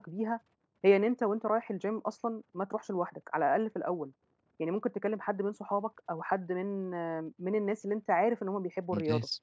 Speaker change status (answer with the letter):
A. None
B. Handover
A